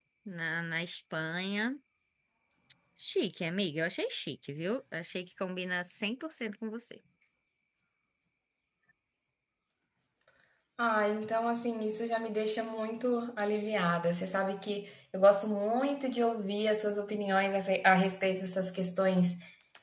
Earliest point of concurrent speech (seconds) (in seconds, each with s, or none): none